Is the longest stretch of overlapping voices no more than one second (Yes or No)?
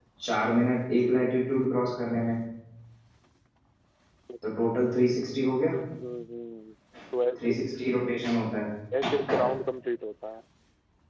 Yes